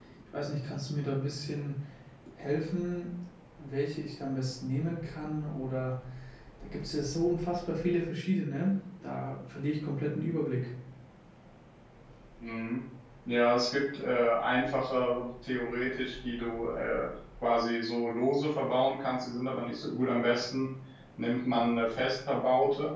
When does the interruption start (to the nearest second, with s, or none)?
none